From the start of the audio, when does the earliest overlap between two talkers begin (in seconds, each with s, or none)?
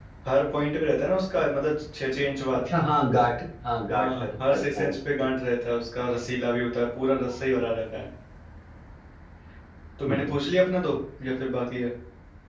3.9 s